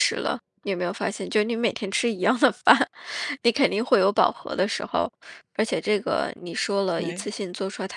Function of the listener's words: listening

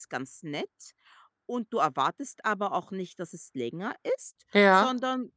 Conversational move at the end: listening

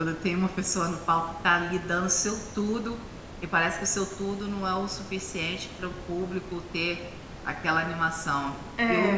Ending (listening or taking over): listening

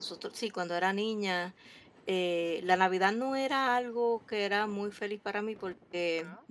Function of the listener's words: listening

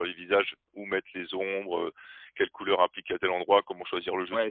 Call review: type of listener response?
taking over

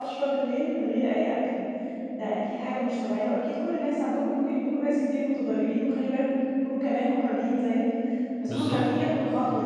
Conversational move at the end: listening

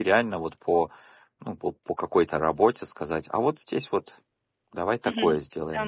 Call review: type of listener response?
taking over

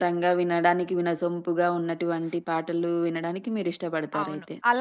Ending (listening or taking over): taking over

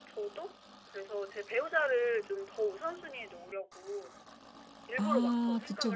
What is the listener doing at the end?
taking over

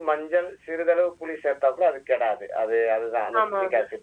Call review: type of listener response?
listening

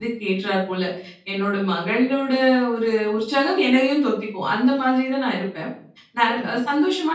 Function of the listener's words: listening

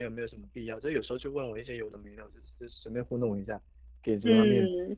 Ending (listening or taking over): taking over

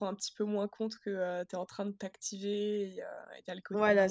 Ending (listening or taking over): taking over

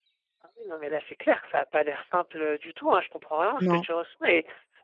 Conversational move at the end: listening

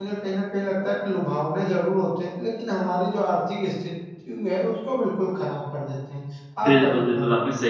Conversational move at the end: taking over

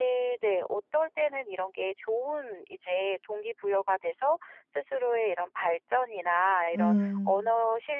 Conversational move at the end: listening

